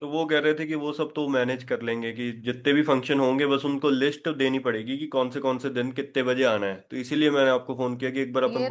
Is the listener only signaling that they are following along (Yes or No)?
No